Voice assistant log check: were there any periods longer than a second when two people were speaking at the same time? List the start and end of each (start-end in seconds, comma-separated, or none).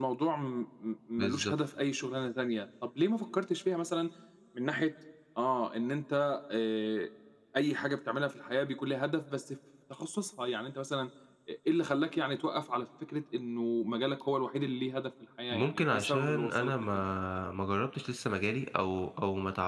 15.5-17.0